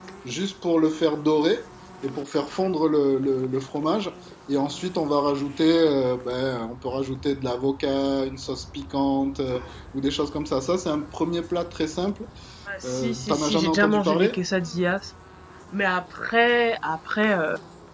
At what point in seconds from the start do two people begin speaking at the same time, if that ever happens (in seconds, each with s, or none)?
12.8 s